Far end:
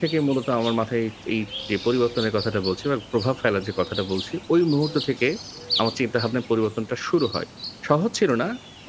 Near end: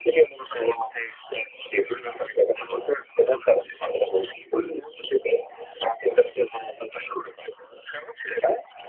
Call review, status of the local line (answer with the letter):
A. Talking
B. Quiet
B